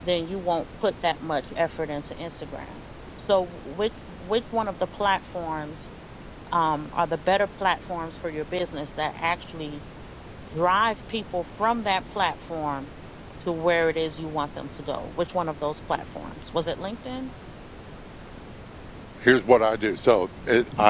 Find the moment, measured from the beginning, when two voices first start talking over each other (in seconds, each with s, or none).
none